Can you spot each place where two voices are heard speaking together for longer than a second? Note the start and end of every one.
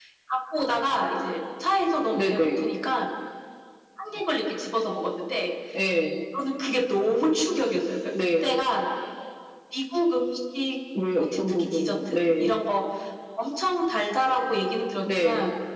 11.2-12.5

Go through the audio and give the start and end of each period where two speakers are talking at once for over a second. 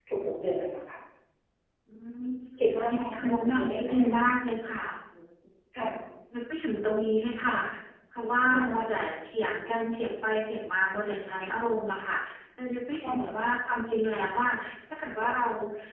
2.8-4.0

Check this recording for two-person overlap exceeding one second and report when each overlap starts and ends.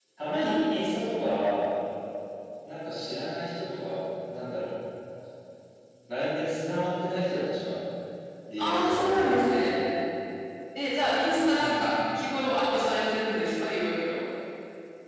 8.6-9.8

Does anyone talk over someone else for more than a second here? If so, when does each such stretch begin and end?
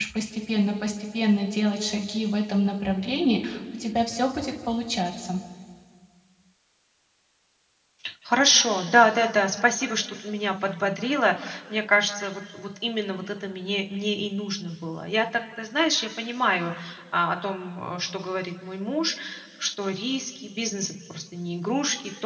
none

